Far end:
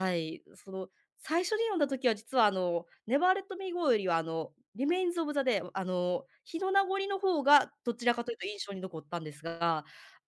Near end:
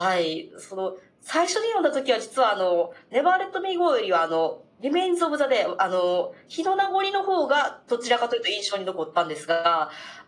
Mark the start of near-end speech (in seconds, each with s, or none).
none